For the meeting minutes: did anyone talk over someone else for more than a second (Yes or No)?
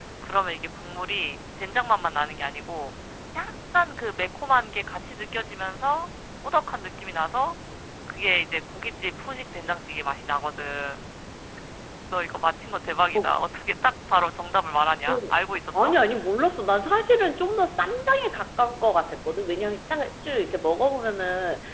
No